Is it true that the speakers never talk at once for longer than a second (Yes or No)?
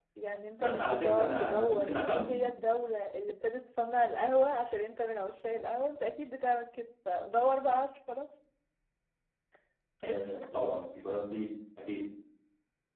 No